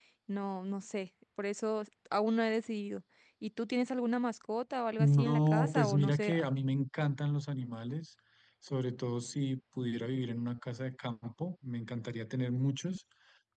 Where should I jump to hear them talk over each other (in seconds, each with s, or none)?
5.0 s